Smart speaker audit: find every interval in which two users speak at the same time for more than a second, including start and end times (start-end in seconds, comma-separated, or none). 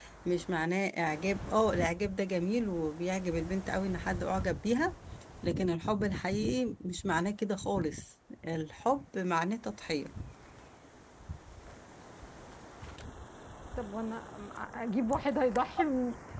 none